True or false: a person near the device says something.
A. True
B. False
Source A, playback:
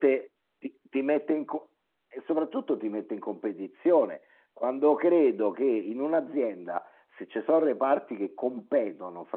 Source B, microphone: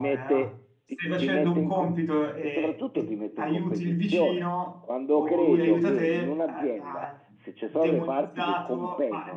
A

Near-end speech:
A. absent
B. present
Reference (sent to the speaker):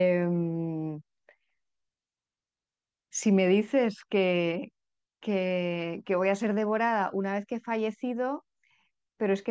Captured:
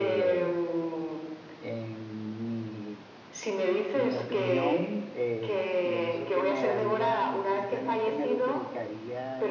B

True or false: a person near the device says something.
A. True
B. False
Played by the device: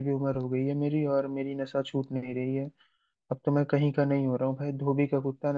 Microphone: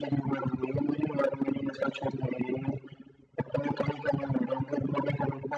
B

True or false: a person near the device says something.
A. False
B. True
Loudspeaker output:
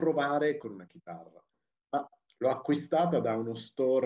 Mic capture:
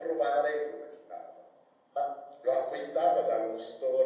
A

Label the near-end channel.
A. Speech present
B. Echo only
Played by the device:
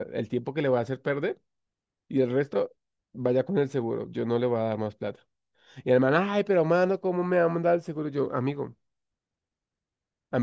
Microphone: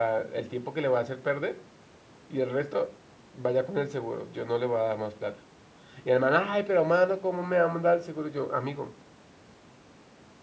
B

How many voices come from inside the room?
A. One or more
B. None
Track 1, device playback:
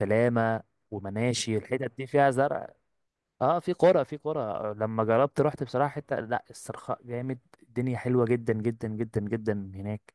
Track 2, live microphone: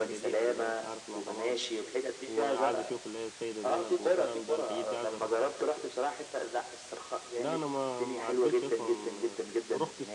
A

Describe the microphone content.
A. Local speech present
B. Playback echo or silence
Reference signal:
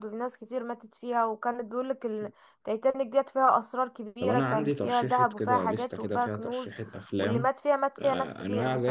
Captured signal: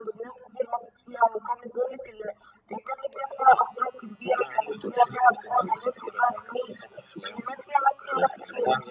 B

